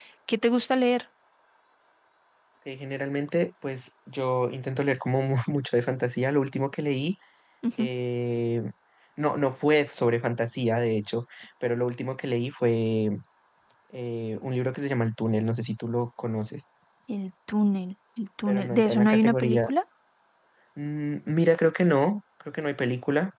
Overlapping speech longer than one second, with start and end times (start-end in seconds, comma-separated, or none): 18.5-19.7